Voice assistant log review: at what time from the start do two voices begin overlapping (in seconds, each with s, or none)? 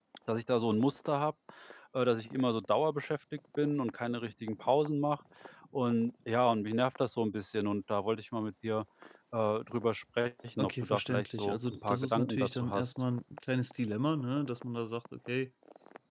10.6 s